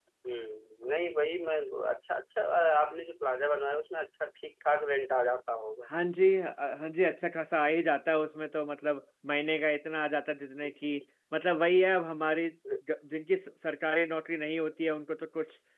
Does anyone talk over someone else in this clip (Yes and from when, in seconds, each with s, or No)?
No